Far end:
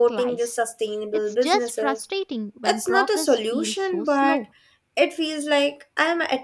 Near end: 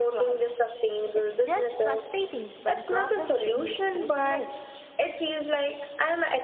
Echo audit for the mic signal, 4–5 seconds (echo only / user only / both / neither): echo only